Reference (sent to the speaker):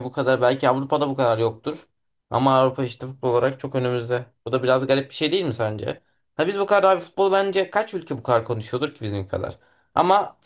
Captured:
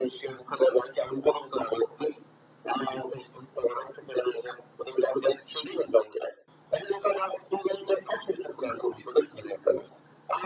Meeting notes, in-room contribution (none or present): none